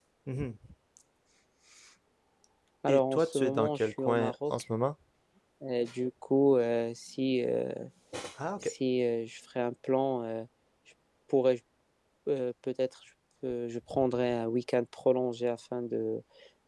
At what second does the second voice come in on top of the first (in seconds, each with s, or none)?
2.9 s